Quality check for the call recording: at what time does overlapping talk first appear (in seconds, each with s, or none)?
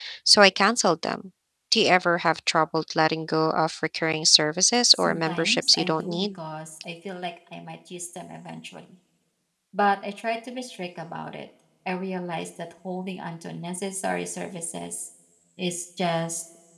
4.9 s